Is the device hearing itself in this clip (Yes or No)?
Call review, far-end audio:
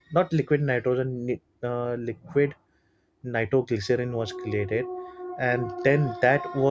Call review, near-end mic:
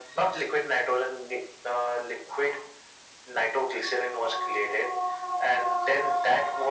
Yes